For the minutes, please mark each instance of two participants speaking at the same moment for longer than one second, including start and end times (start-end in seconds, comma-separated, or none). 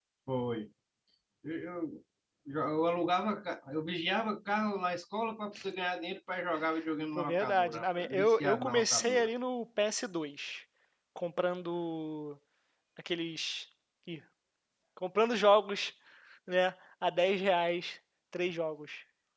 7.2-9.3